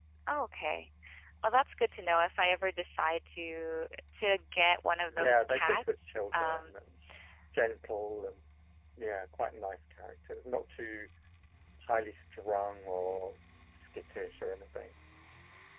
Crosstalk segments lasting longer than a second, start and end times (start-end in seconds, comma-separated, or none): 5.1-6.8